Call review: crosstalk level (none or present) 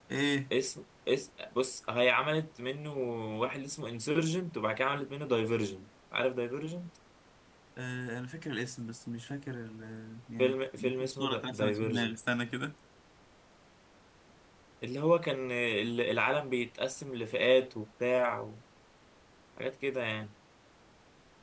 present